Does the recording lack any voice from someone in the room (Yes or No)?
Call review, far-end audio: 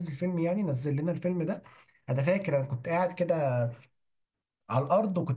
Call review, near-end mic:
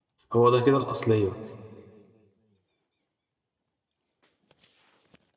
No